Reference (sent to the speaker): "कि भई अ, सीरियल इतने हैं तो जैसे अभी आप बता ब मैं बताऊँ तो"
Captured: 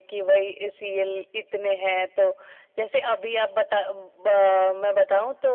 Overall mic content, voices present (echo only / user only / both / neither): echo only